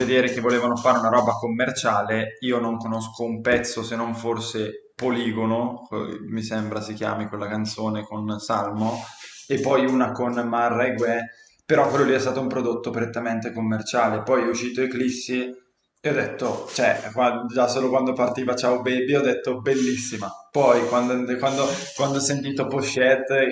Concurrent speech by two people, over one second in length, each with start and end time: none

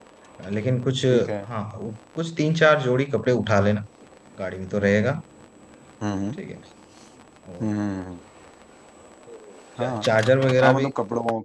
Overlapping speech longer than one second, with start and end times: none

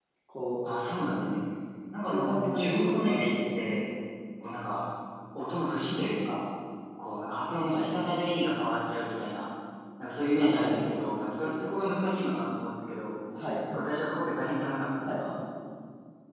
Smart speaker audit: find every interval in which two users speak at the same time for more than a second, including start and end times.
2.1-3.6

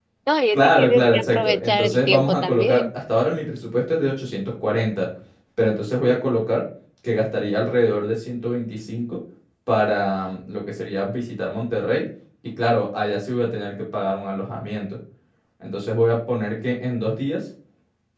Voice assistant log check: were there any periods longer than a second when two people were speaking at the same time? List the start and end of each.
0.5-2.8

